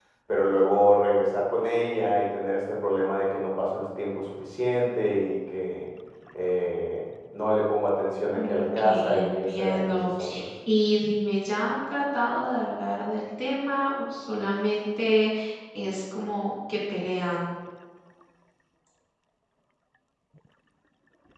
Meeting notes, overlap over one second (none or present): present